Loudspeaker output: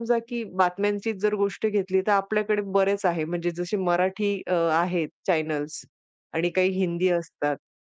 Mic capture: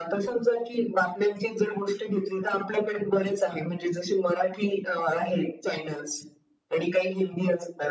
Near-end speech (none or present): none